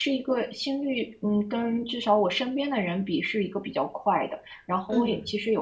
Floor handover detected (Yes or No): No